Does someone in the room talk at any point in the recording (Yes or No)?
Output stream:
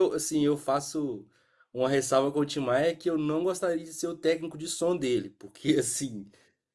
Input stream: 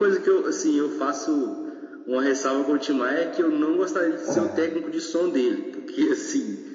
Yes